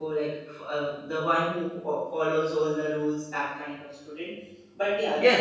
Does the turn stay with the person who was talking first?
No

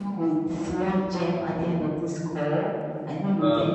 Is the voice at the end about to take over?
Yes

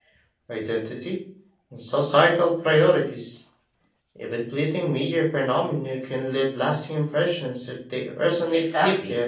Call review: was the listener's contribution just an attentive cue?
No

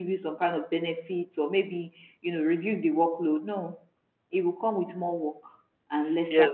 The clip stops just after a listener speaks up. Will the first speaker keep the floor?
No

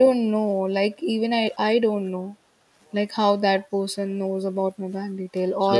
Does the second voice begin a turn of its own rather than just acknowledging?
No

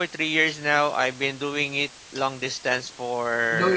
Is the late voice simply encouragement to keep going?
Yes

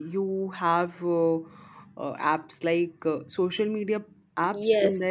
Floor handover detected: Yes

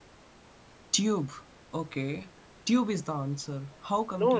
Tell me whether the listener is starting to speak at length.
Yes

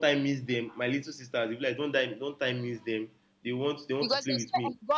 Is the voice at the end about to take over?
Yes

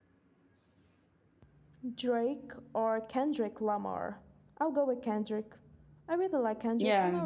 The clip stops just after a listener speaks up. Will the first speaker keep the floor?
Yes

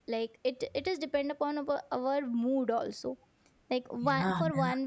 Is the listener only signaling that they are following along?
Yes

